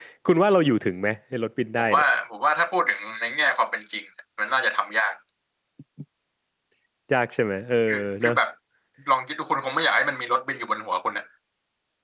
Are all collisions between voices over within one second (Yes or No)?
Yes